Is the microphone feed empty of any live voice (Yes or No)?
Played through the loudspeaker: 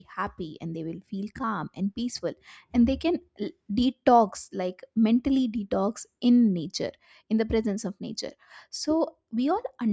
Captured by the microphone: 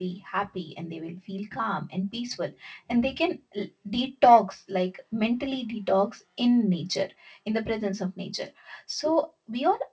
Yes